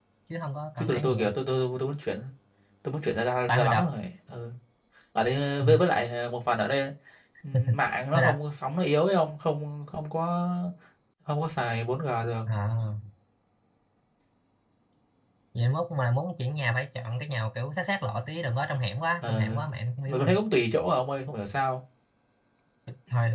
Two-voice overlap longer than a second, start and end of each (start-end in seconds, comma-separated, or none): none